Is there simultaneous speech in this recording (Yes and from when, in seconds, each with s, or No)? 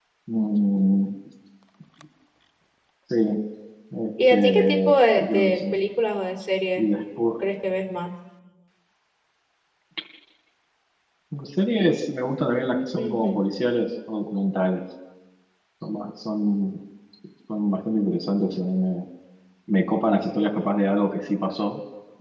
Yes, from 4.3 s